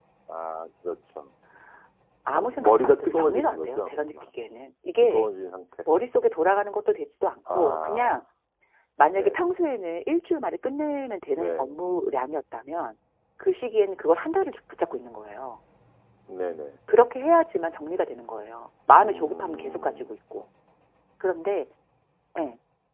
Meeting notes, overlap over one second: present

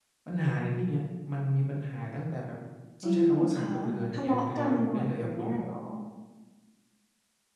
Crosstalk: present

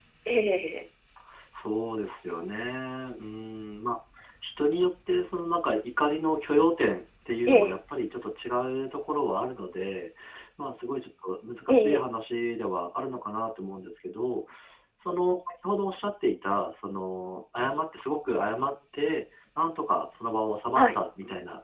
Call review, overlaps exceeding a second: none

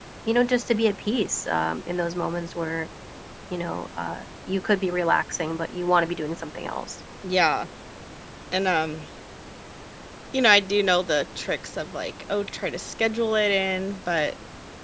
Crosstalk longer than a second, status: none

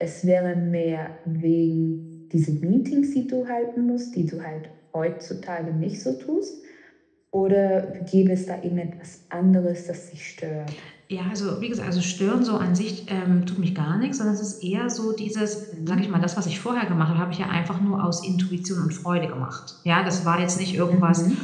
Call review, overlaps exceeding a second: none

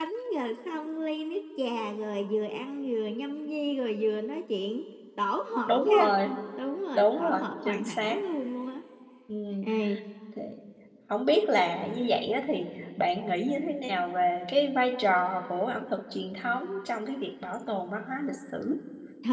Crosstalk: present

